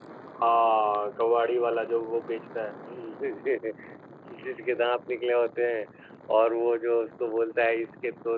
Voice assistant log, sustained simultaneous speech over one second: none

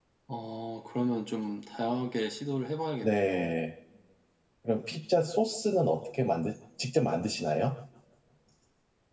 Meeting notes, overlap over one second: none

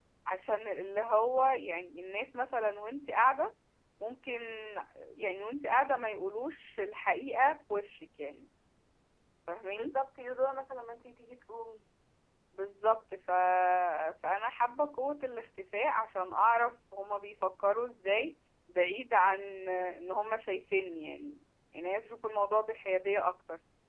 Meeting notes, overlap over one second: none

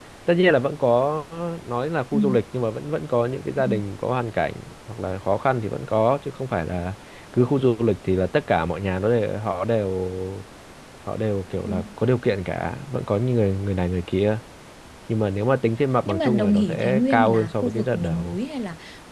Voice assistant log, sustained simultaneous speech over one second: present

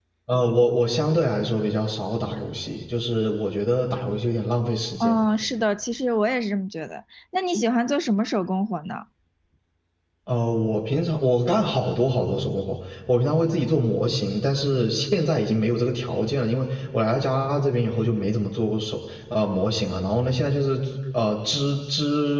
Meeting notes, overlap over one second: none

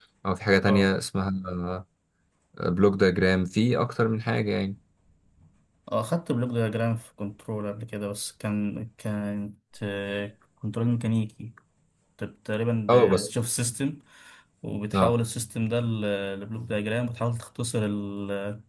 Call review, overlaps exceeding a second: none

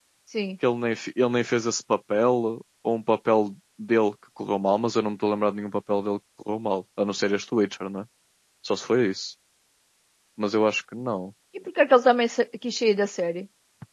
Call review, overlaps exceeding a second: none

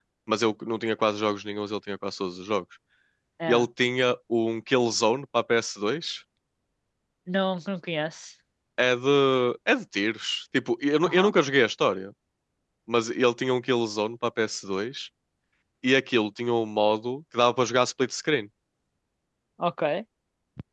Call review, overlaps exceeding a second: none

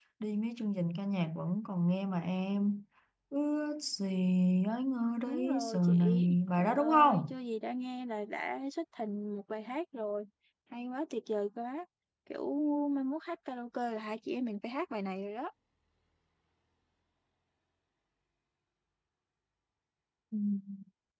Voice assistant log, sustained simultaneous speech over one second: present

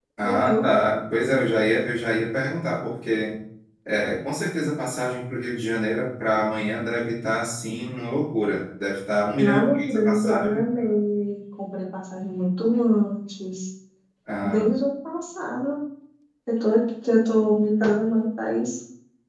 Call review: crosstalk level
present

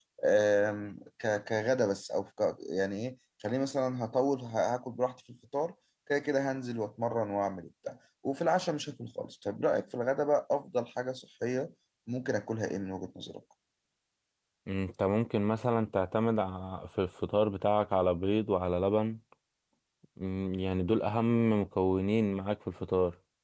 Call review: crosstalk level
none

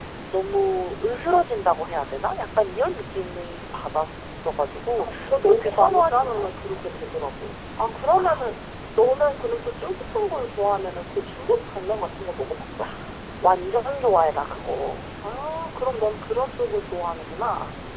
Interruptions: present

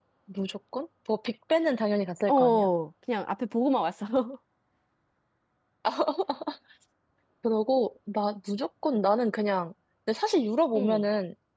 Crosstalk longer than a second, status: none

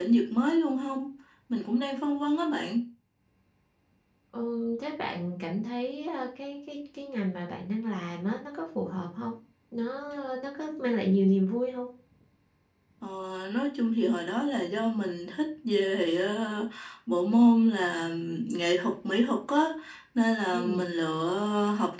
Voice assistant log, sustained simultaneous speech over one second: none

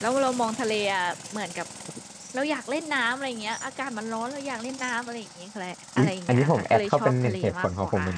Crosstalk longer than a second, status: present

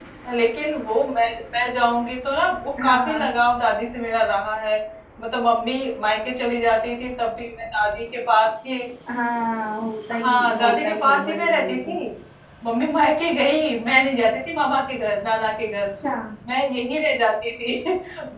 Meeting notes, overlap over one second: present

